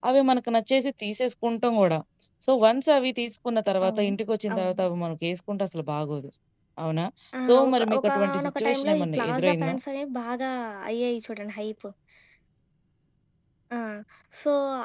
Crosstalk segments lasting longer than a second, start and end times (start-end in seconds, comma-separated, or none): 7.5-9.8